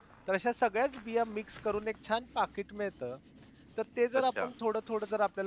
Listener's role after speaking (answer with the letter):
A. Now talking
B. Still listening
B